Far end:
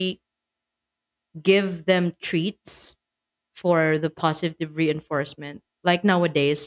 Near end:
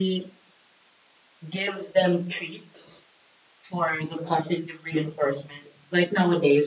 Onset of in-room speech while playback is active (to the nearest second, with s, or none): none